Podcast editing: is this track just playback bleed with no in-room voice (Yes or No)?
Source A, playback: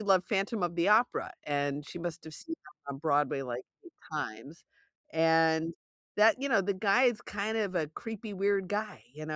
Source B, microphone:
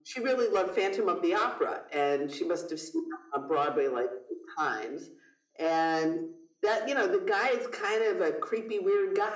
Yes